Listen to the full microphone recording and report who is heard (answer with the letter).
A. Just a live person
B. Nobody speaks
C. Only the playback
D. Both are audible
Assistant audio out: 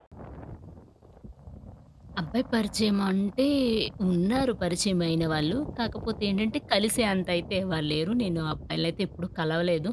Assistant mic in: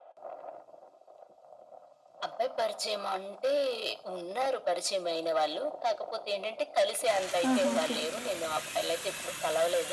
D